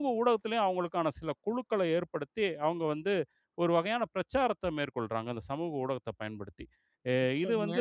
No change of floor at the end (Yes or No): Yes